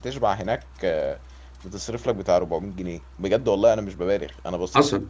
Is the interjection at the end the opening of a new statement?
Yes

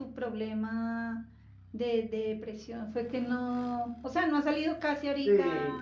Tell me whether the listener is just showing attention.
No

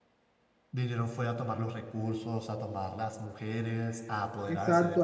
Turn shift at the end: Yes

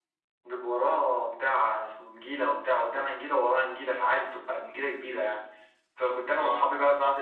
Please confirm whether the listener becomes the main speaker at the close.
No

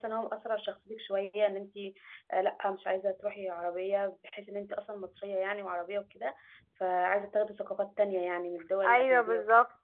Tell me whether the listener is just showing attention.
No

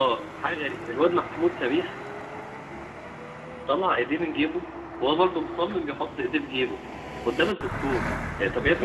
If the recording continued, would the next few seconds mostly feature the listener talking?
Yes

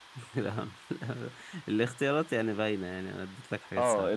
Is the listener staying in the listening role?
No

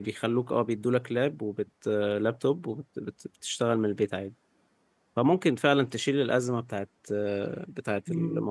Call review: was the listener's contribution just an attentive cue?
No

